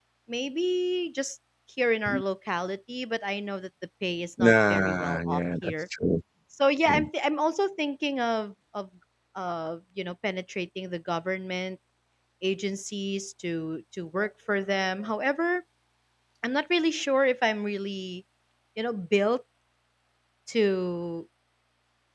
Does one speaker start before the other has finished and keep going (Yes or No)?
Yes